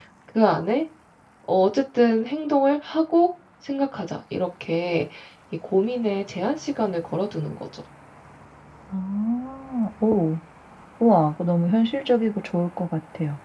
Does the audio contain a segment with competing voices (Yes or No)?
No